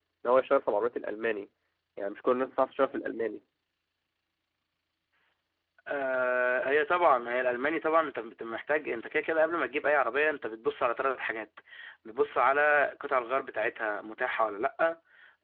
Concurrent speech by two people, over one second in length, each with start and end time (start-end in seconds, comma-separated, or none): none